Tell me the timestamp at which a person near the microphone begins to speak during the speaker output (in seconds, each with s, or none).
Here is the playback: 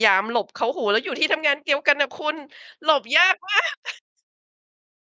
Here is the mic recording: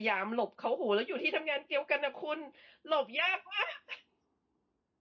none